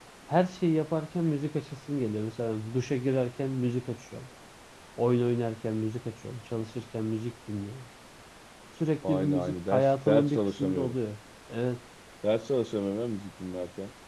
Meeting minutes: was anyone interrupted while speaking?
Yes, from 9.0 s

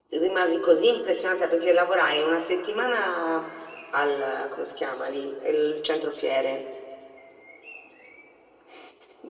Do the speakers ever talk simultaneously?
No

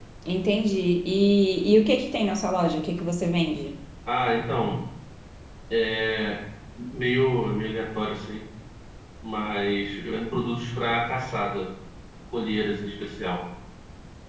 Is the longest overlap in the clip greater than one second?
No

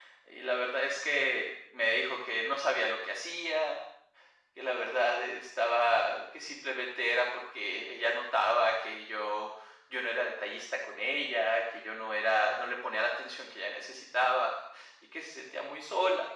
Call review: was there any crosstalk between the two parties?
No

